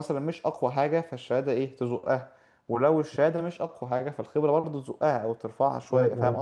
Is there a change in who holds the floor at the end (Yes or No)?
Yes